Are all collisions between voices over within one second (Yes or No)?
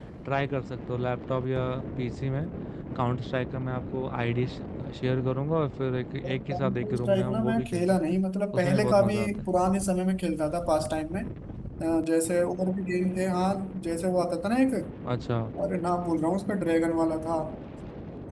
No